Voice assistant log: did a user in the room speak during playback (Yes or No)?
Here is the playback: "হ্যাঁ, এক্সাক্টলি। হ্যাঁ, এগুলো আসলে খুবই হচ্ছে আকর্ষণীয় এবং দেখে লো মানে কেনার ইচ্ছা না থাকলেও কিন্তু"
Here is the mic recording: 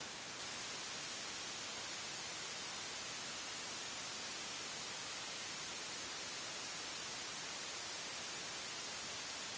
No